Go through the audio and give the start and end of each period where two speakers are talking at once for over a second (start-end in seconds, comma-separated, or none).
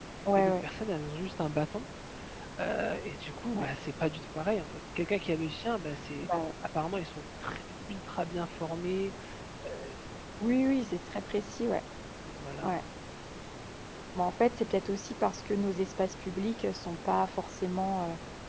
none